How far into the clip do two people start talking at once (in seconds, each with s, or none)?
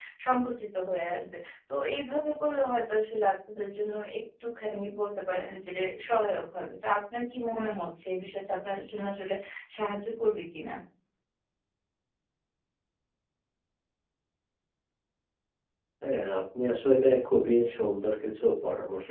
none